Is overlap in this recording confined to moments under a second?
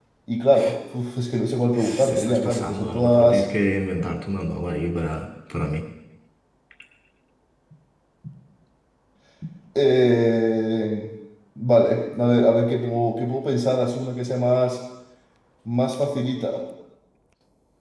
No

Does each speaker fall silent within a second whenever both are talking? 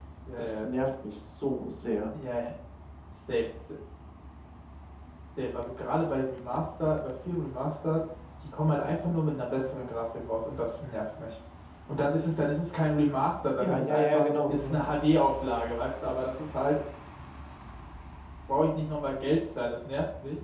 No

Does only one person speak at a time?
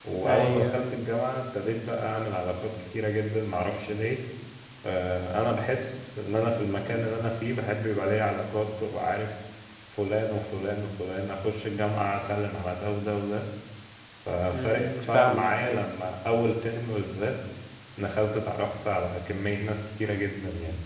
No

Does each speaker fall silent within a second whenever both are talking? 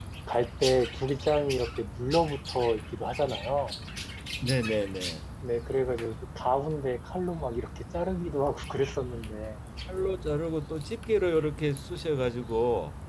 Yes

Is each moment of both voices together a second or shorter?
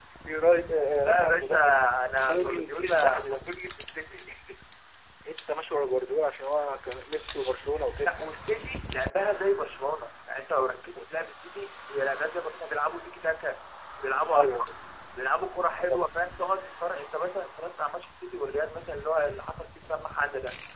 No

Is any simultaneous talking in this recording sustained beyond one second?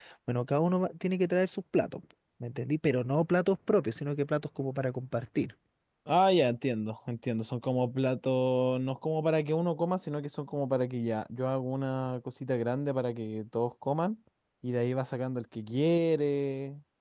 No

